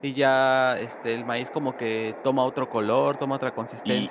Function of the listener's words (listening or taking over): taking over